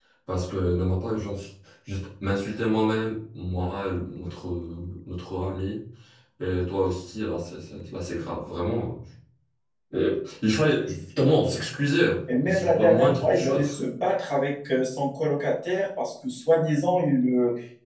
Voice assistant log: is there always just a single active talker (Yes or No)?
No